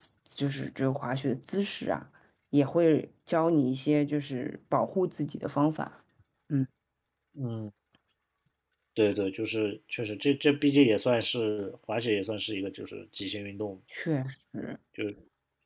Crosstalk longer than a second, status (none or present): none